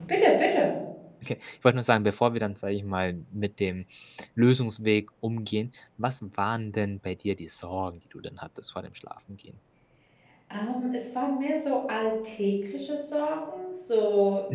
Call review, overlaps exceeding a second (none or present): none